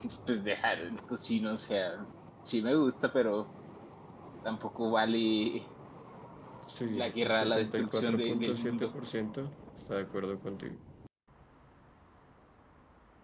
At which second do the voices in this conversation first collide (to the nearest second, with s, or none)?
7 s